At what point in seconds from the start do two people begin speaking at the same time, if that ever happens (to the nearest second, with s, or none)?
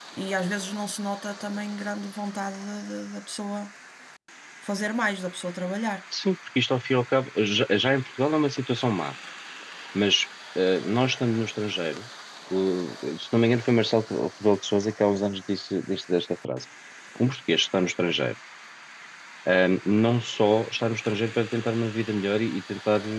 none